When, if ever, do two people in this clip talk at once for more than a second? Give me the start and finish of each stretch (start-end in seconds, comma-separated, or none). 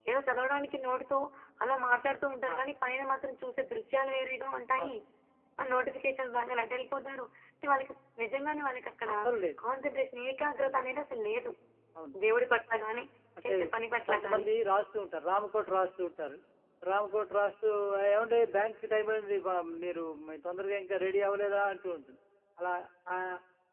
none